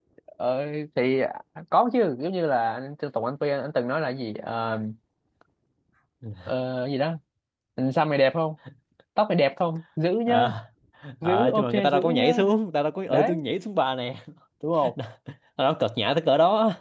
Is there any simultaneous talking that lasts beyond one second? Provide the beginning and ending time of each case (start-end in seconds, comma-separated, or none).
11.2-12.5